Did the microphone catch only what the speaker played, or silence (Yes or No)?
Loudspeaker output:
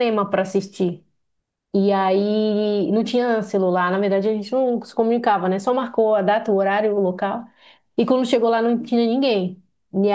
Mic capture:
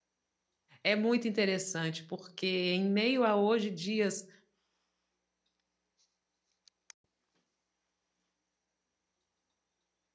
No